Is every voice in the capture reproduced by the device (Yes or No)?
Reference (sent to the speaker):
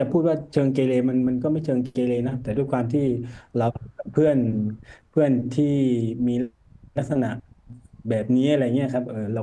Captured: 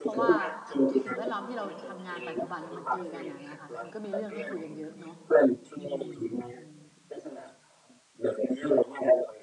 No